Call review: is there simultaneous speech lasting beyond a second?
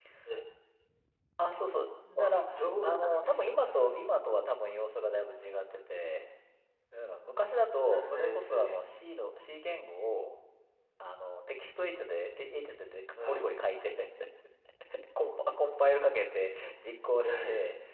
Yes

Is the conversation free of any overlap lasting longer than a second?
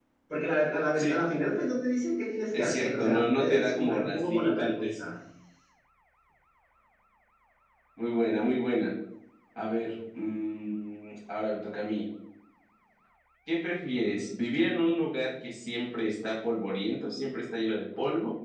No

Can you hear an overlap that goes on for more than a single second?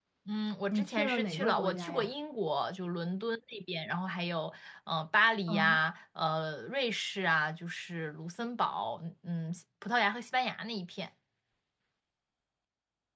Yes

